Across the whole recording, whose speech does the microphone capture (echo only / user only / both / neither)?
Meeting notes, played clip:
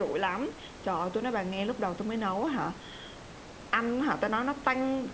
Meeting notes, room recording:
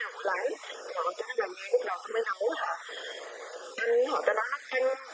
echo only